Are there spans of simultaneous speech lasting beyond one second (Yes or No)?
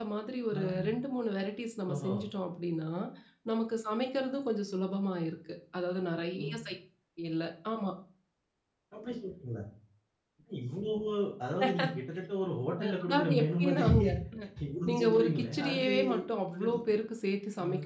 Yes